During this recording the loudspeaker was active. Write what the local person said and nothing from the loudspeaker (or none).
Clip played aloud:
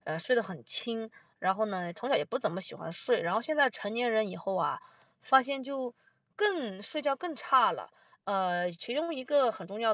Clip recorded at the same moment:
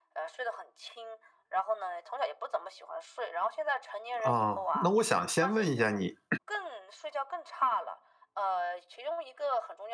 哦，那我想先问一下你，